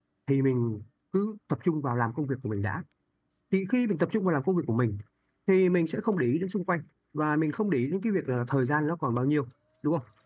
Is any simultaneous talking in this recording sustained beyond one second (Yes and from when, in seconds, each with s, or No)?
No